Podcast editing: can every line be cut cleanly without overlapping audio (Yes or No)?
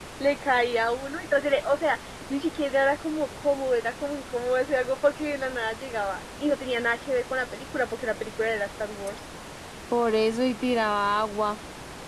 Yes